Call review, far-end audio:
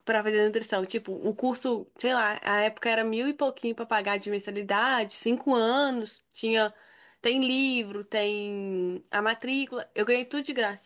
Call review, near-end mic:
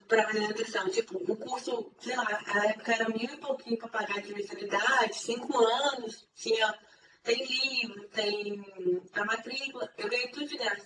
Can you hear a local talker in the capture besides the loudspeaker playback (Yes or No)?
No